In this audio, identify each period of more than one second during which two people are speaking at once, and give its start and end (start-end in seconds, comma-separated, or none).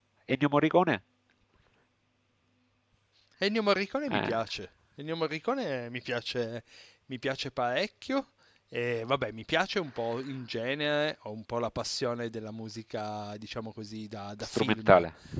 none